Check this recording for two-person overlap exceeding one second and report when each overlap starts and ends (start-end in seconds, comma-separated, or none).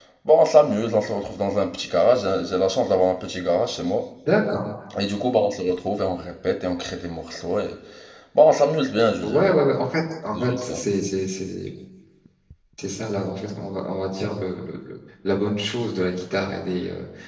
none